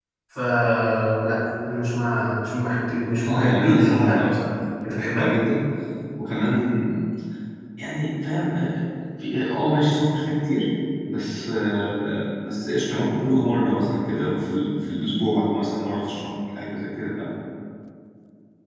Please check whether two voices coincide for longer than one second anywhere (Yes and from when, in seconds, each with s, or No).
Yes, from 3.3 s